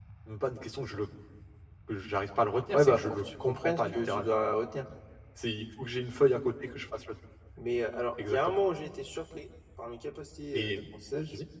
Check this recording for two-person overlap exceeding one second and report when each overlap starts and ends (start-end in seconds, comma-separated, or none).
2.7-4.4